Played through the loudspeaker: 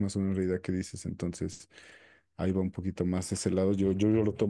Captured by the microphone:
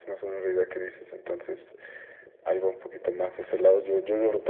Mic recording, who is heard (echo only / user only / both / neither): echo only